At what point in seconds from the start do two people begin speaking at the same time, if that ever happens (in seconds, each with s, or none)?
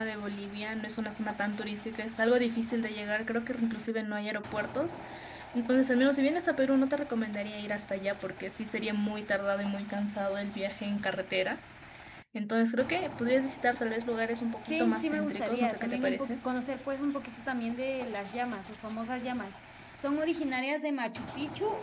14.7 s